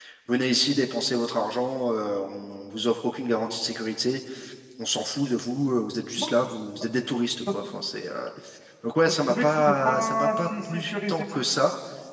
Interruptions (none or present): present